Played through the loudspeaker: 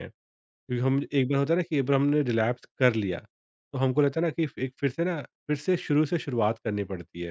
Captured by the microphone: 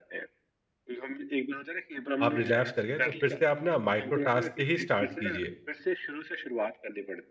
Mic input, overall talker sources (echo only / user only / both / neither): both